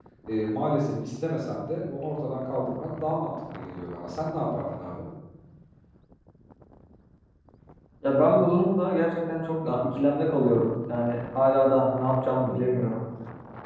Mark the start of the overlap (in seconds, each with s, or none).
none